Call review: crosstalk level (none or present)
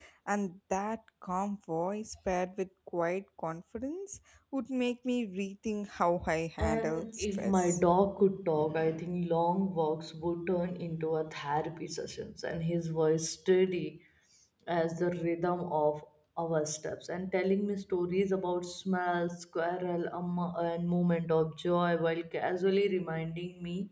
present